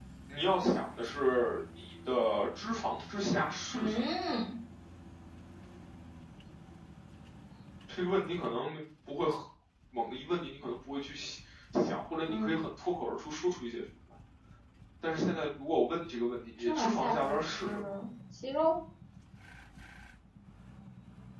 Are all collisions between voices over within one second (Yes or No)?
No